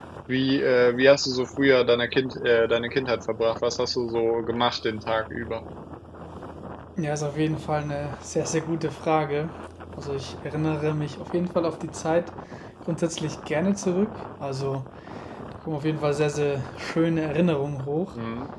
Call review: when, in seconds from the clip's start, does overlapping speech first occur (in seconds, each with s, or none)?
none